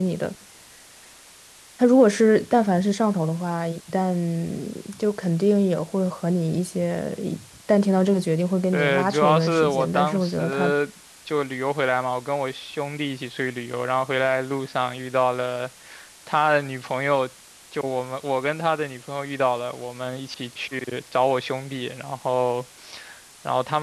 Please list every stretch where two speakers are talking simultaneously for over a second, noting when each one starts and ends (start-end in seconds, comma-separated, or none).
8.7-10.7